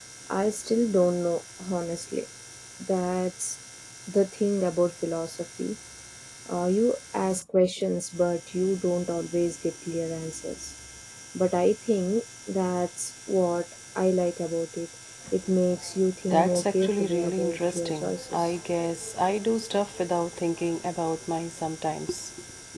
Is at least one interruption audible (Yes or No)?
Yes